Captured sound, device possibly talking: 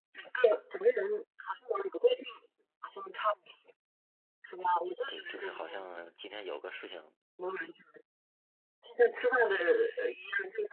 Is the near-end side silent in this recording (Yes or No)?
No